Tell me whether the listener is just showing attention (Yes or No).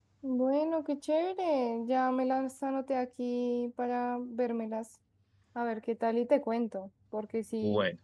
Yes